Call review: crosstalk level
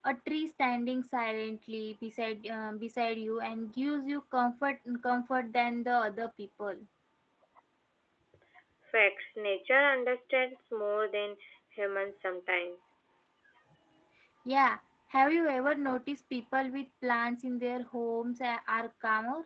none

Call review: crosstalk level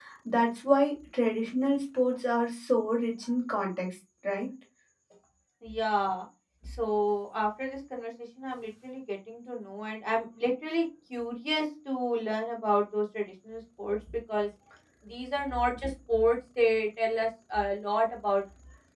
none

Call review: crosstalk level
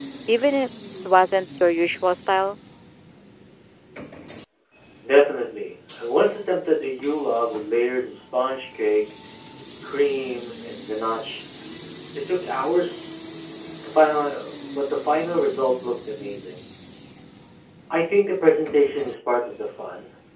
none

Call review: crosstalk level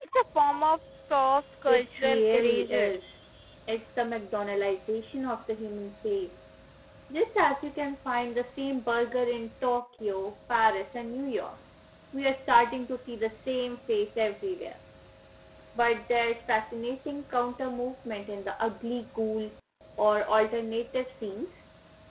present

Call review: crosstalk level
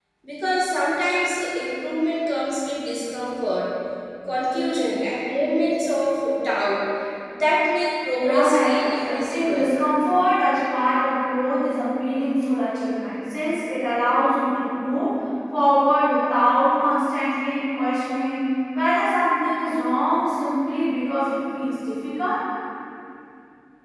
present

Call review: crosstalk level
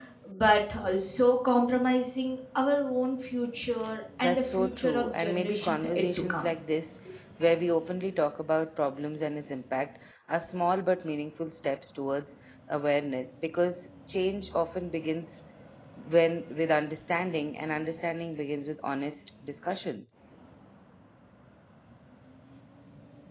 present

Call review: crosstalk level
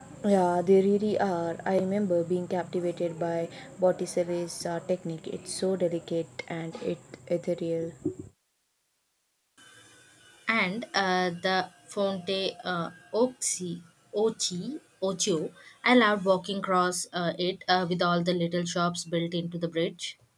none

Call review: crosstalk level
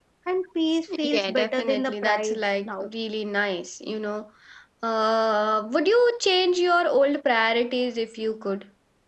present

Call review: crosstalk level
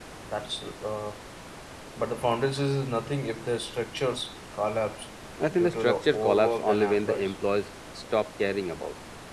present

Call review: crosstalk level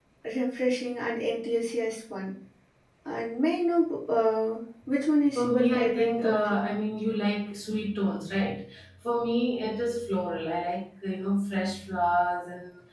present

